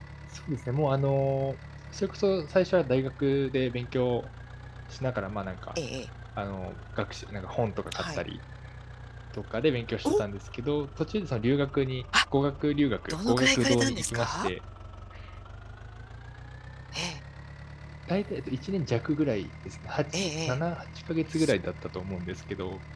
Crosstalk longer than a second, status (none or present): present